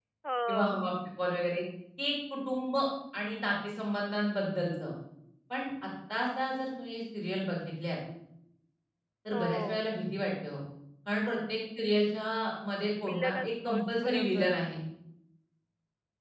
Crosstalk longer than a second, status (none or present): present